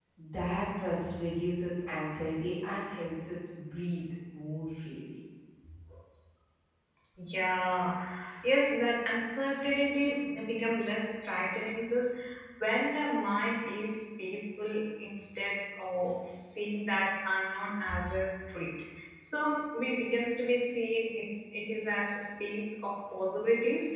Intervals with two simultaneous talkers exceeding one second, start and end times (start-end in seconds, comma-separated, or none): none